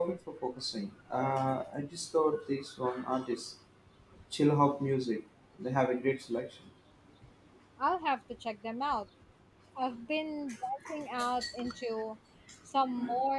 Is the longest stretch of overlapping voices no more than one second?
Yes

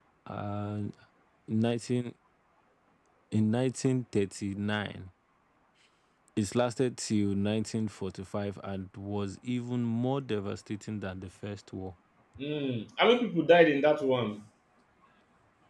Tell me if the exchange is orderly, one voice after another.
Yes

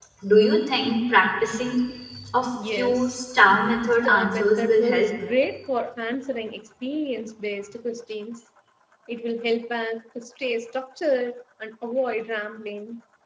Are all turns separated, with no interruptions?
No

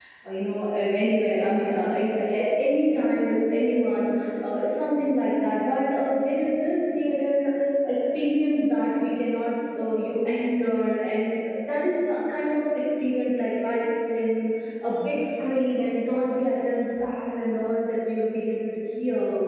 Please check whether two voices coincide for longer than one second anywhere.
No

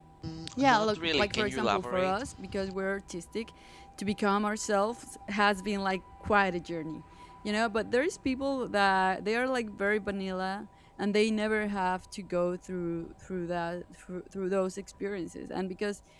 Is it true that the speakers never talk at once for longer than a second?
No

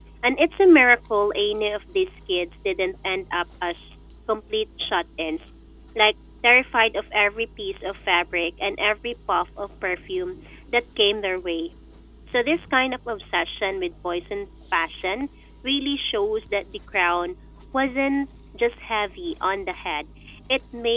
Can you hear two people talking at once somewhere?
No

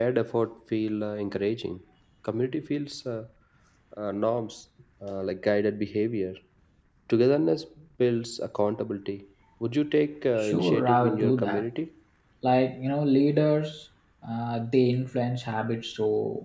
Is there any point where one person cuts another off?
Yes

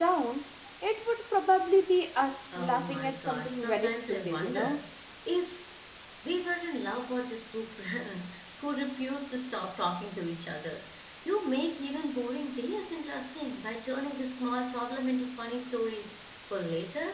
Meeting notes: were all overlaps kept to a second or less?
No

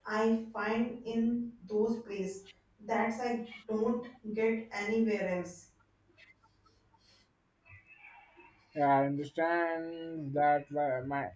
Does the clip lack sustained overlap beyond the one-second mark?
Yes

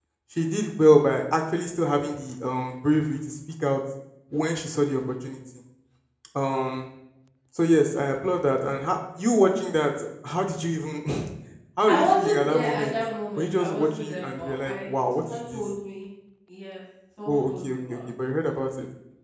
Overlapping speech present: Yes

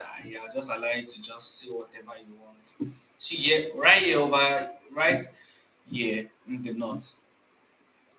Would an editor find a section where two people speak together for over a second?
No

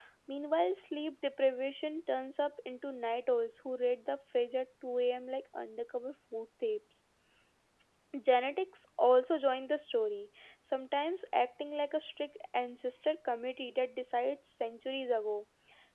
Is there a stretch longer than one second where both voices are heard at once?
No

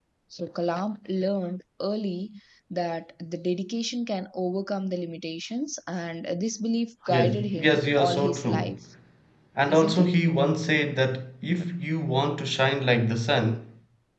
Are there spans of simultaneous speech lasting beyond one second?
Yes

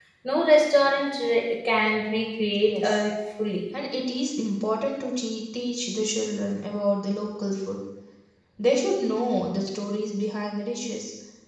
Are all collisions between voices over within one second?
Yes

